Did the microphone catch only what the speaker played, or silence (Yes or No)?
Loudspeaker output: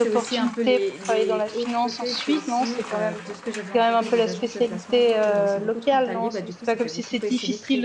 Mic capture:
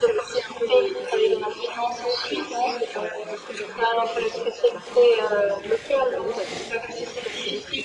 Yes